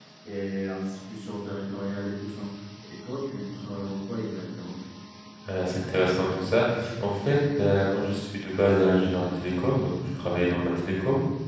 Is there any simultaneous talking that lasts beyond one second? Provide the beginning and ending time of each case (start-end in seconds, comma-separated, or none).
none